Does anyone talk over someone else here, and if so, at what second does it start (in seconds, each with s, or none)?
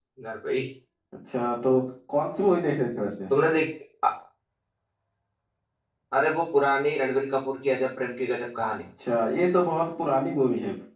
none